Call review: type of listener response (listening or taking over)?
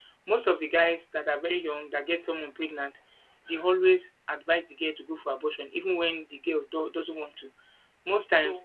taking over